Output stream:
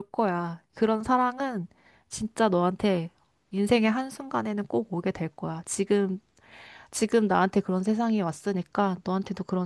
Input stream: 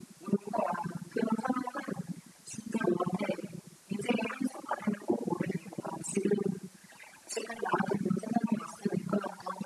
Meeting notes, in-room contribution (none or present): none